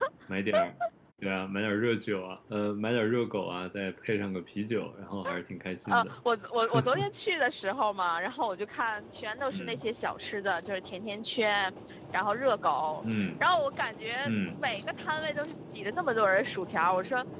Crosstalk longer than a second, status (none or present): none